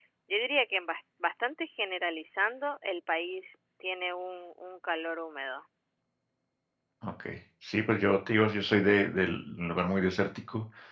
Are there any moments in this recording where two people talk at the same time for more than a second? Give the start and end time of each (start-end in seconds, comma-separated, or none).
none